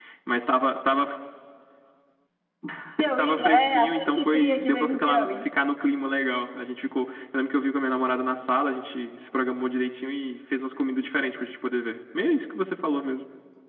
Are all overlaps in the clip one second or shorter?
No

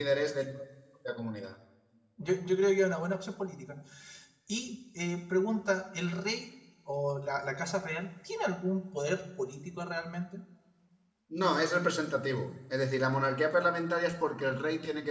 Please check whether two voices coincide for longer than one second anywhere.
No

